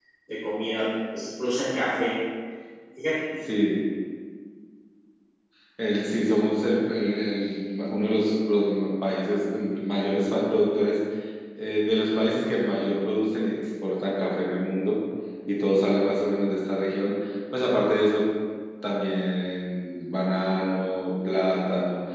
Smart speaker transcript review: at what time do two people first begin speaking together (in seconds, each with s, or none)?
none